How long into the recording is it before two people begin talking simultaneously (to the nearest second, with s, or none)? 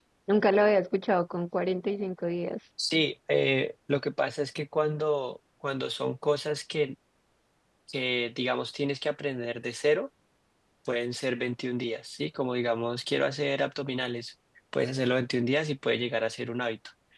none